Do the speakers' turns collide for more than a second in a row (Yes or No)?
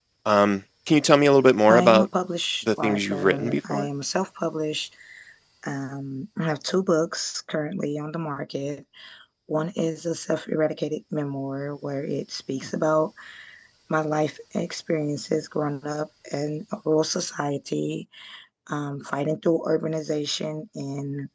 Yes